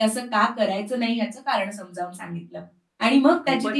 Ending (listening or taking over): listening